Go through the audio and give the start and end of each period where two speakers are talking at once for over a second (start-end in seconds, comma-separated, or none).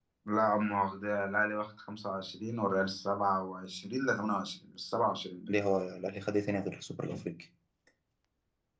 none